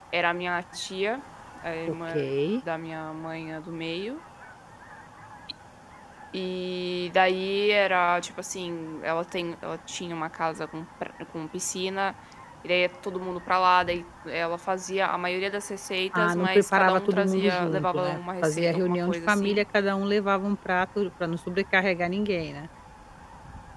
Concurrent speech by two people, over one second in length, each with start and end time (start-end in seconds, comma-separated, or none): 16.1-19.6